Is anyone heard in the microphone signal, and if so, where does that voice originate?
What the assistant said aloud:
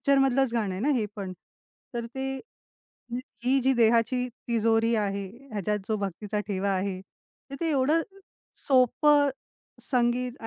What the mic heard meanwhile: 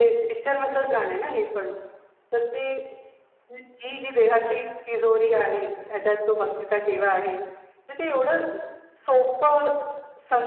echo only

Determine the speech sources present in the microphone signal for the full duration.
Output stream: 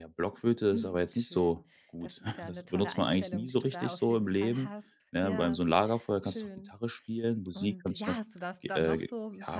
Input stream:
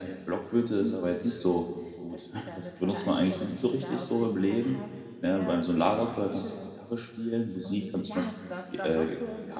echo only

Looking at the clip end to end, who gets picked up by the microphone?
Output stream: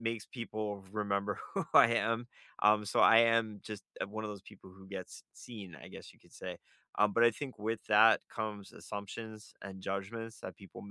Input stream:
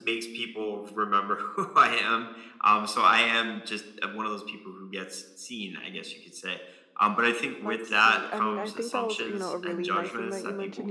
both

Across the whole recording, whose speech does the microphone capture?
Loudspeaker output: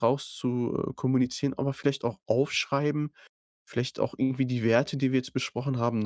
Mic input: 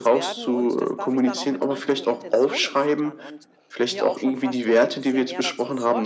both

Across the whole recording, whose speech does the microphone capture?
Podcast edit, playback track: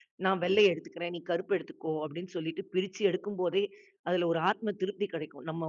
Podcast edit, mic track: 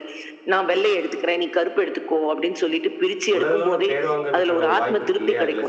both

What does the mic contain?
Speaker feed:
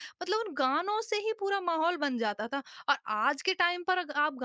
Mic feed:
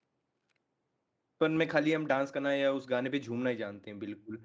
user only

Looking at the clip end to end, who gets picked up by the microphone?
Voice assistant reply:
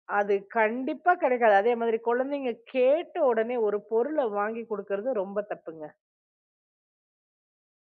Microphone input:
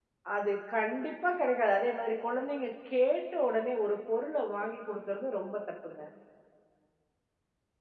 echo only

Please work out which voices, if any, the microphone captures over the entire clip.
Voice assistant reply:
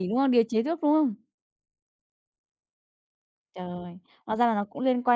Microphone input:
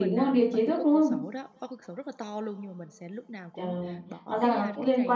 both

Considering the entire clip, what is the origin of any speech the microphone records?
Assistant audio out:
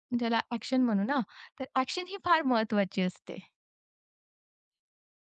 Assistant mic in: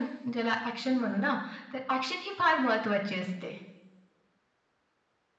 echo only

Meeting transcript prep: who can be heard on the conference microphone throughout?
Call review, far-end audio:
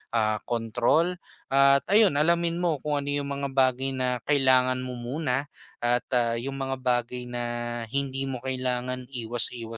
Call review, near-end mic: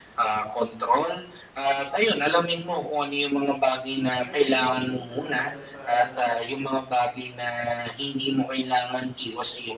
both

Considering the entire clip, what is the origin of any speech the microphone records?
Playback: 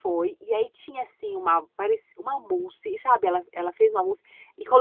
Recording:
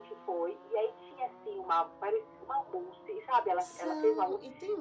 both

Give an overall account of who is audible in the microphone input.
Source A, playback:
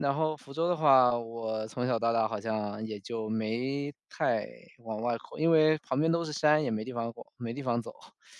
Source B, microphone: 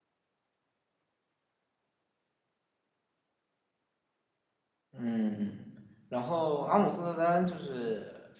user only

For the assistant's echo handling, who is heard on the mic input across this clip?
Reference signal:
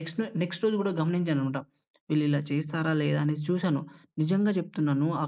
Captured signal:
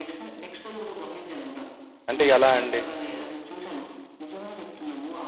both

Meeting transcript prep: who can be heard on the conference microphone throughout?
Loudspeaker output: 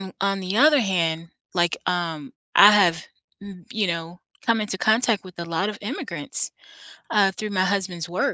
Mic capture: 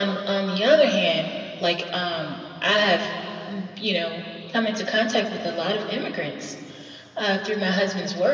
echo only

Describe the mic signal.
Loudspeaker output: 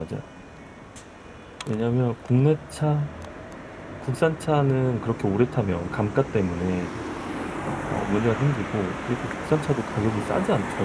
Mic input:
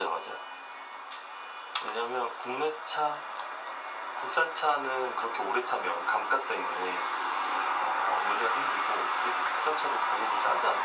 echo only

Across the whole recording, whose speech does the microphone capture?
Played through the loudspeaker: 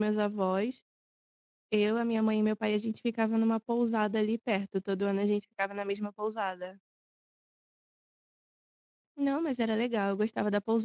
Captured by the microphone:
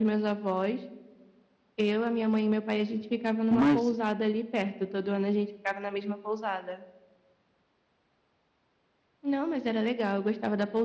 both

